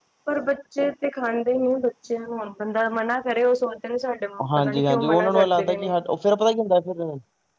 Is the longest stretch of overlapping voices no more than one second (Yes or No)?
No